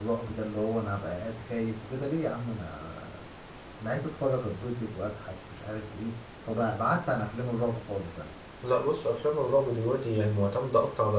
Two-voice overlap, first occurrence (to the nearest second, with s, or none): none